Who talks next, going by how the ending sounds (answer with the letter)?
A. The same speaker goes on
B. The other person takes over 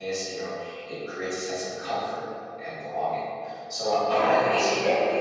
B